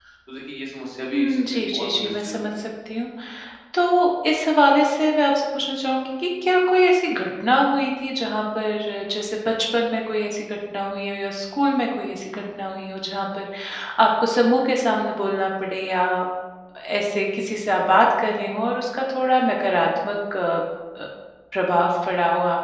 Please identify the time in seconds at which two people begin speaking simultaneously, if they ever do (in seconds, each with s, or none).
1.1 s